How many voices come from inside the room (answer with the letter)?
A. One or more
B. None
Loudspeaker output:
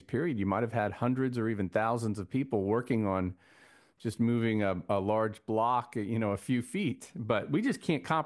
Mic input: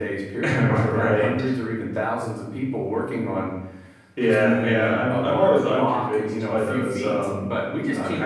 A